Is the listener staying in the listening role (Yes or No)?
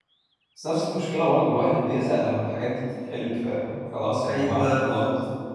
No